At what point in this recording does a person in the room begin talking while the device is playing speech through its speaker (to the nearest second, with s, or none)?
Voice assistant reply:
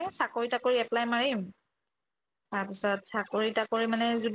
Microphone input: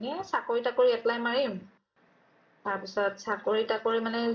none